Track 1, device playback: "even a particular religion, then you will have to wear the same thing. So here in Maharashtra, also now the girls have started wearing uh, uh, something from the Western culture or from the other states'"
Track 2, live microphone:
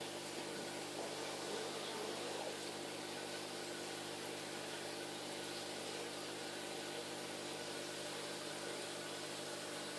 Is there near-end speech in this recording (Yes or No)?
No